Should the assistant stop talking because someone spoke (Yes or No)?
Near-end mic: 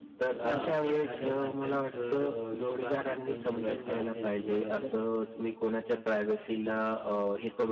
Yes